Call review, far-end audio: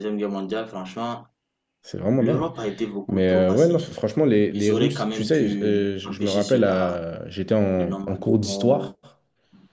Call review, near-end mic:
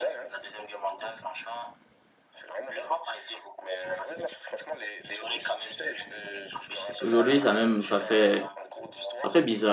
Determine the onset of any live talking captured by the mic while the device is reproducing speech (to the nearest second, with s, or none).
7 s